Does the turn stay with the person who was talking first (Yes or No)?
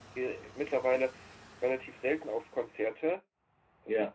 Yes